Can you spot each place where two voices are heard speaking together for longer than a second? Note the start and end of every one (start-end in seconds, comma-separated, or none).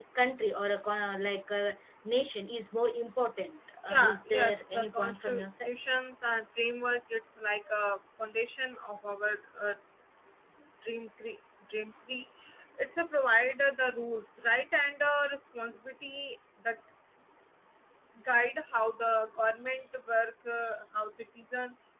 3.9-5.7